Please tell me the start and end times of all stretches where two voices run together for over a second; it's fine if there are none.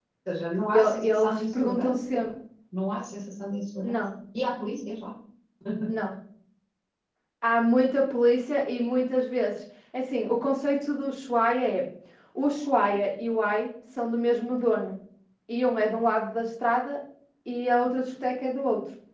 0.7-2.1

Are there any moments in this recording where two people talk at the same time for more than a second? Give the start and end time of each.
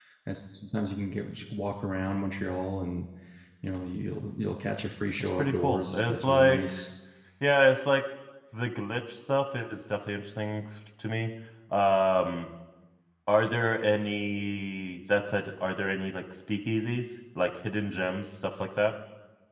5.2-6.6

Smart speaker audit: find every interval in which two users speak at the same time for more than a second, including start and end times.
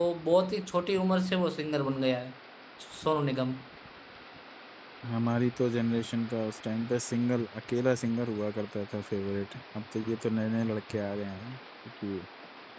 none

